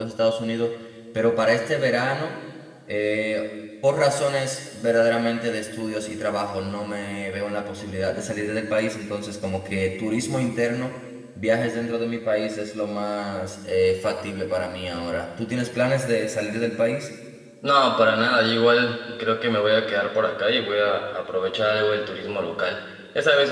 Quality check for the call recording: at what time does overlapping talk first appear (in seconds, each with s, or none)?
none